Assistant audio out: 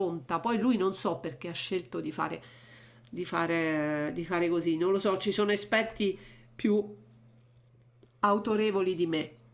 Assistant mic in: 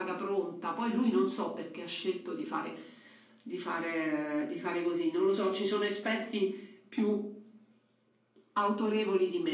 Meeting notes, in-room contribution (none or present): none